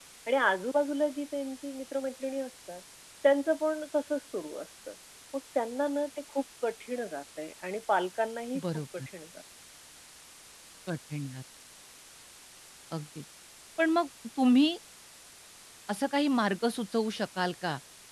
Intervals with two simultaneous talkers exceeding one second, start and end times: none

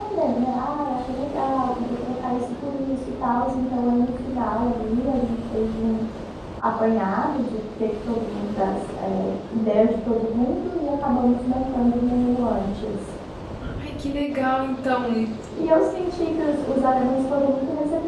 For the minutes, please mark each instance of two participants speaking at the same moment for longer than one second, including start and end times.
none

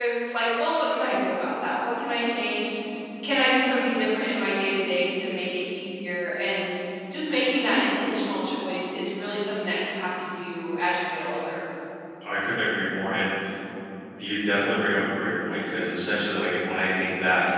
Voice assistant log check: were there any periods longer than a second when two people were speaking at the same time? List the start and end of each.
none

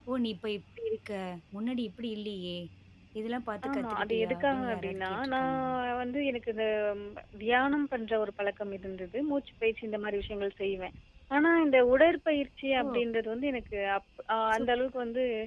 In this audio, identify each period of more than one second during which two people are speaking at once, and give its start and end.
3.7-5.7

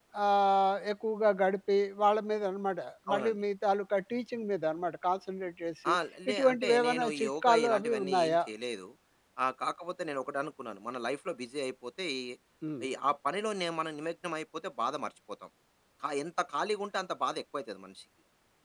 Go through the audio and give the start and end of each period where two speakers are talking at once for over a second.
6.3-8.4

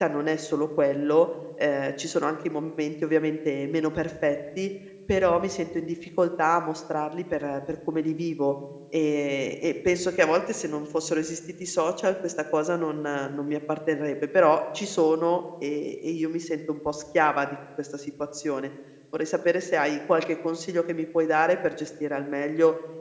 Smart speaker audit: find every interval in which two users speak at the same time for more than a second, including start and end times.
none

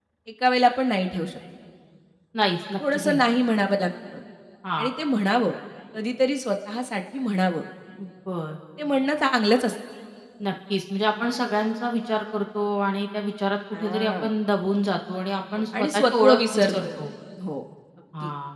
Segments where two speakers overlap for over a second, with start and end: 15.5-16.9

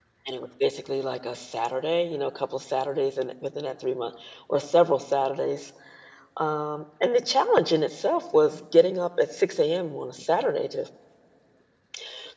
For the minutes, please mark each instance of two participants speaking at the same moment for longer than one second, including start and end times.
none

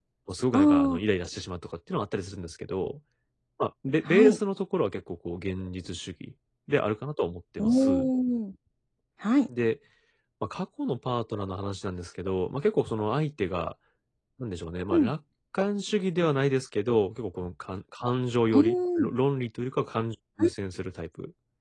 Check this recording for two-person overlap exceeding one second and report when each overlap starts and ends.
none

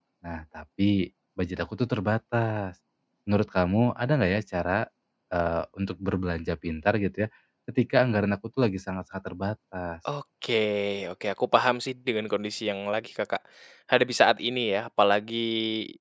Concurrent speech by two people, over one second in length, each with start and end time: none

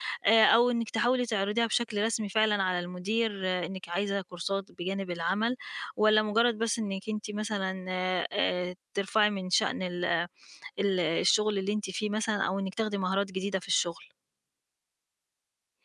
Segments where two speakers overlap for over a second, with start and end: none

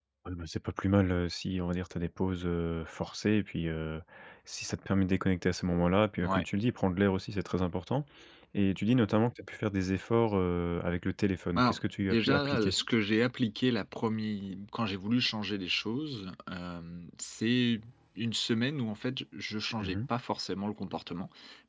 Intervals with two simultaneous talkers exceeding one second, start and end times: 11.6-12.8

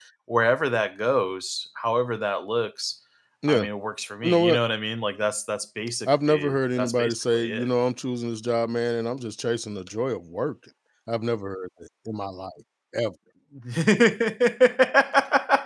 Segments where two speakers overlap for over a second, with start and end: 6.1-7.7

